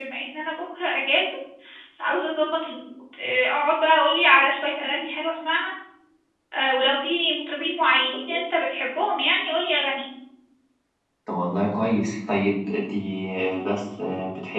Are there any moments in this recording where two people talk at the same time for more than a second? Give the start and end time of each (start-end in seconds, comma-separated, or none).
none